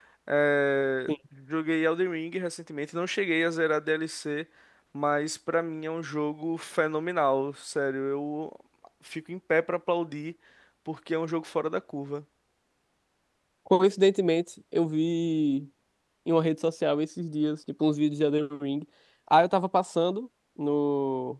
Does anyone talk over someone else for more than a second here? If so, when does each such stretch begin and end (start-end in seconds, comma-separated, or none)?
none